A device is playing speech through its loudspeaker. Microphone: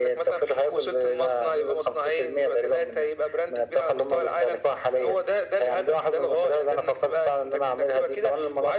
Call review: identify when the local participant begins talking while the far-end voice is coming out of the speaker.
none

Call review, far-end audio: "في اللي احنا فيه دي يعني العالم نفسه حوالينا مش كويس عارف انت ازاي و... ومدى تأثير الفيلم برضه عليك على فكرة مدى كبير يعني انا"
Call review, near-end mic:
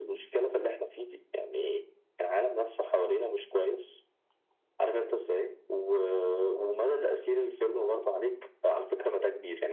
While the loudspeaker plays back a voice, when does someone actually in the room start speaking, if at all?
none

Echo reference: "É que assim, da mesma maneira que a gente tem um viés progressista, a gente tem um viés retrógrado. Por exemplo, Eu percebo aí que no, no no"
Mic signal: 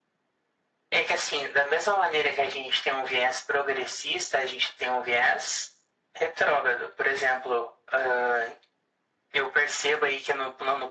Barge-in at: none

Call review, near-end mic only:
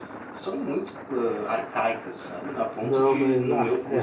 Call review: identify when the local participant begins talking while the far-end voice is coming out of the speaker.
2.8 s

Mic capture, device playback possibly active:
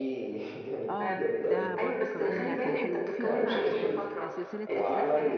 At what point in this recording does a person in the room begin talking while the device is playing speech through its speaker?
0.9 s

